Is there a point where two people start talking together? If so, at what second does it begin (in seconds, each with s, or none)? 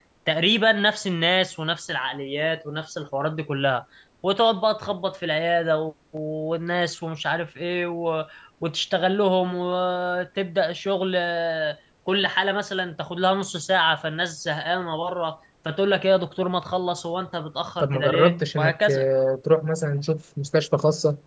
17.8 s